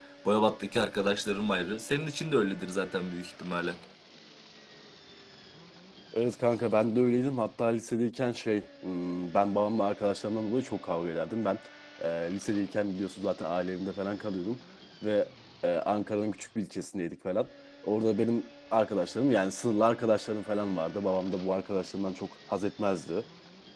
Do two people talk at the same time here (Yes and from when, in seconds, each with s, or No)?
No